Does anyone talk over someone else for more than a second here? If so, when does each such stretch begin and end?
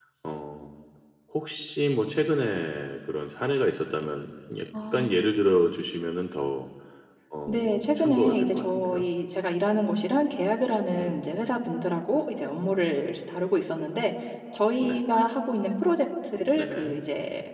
7.5-9.1

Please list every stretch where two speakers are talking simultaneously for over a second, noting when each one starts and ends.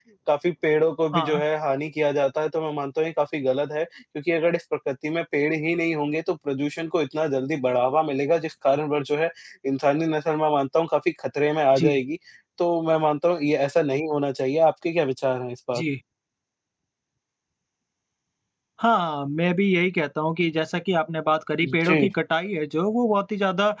none

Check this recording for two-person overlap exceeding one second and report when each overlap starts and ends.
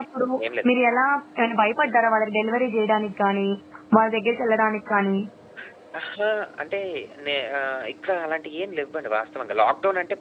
none

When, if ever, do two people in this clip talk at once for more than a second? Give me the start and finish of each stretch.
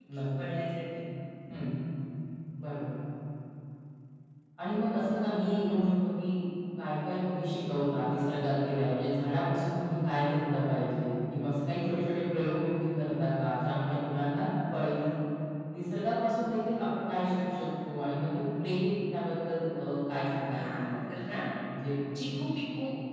none

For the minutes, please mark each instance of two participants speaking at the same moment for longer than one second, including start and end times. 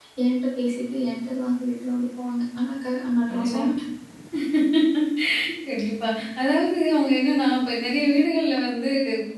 none

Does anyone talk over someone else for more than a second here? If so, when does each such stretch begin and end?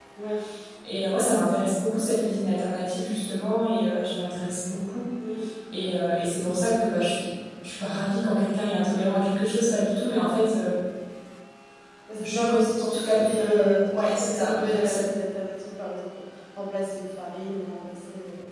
12.2-15.0

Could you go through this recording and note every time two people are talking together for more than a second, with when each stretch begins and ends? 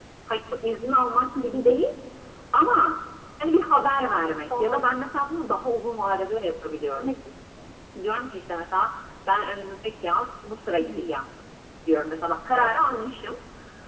none

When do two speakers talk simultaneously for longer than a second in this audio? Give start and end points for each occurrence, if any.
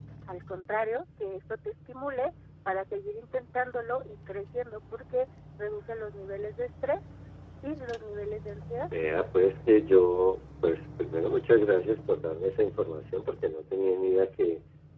none

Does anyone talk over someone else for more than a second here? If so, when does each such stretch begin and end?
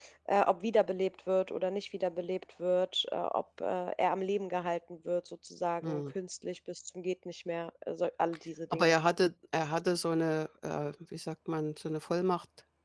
none

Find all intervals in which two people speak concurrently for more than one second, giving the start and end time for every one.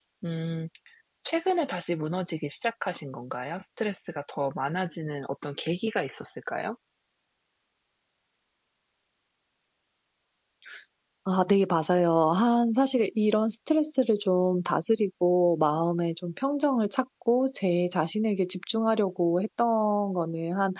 none

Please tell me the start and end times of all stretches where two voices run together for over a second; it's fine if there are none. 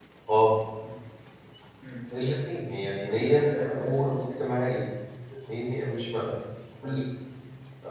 3.0-4.2

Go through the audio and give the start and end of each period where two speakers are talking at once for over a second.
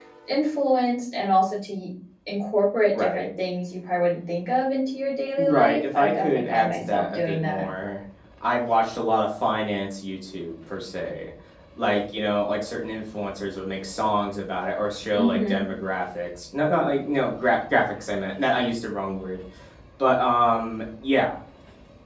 5.4-7.6

